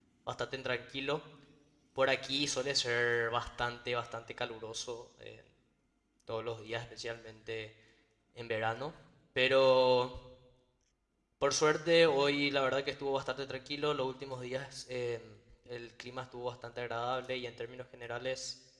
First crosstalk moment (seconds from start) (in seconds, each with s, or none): none